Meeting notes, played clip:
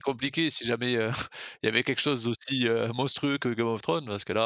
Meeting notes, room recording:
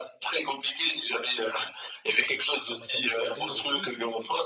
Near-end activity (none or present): present